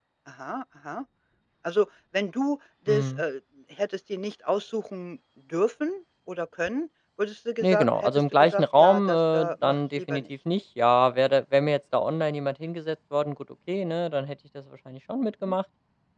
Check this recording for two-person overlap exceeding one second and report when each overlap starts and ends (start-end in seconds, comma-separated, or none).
7.6-10.2